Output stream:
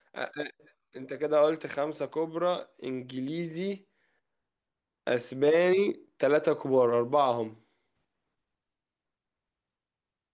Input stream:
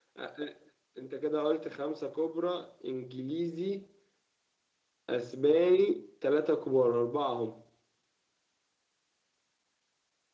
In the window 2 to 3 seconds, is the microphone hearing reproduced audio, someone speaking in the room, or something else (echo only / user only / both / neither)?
echo only